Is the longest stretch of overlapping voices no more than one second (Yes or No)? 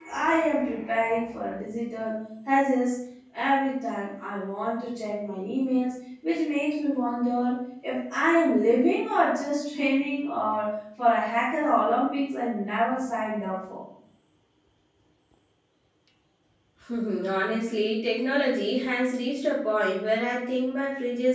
Yes